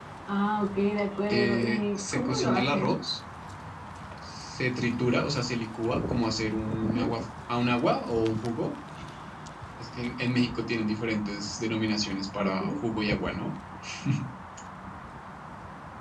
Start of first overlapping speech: 1.3 s

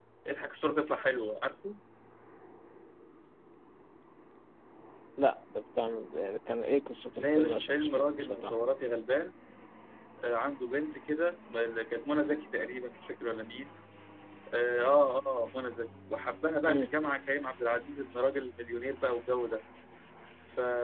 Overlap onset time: 7.2 s

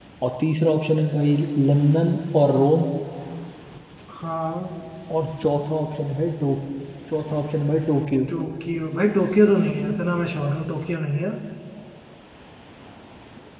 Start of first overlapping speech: none

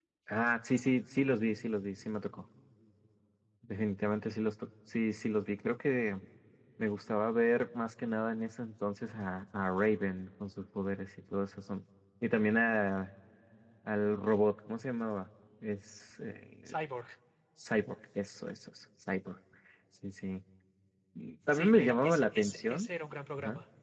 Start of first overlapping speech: 21.5 s

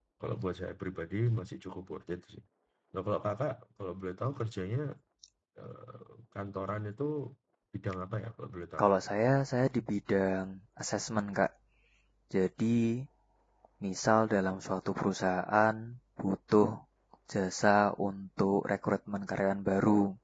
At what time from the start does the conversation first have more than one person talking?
none

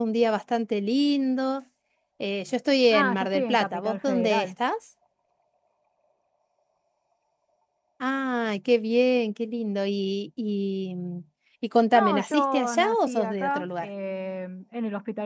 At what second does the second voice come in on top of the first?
2.9 s

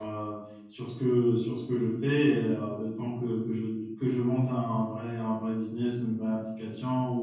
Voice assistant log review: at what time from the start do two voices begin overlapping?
none

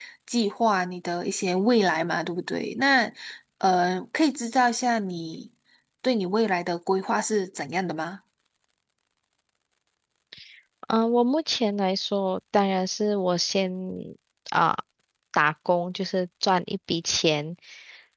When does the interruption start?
none

